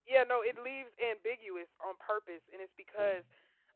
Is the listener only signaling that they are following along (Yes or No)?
Yes